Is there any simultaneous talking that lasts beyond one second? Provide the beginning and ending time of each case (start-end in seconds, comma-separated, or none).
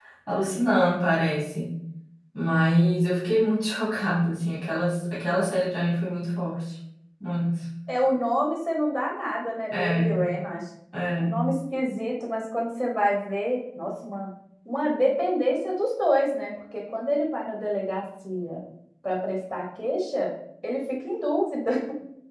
none